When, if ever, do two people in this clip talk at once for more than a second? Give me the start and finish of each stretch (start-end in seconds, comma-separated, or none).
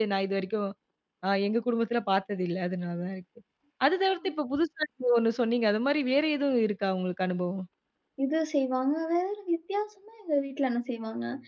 none